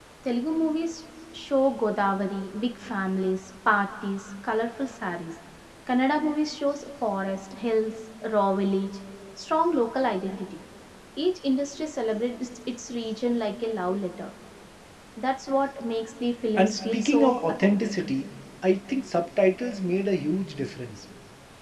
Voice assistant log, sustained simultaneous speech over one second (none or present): present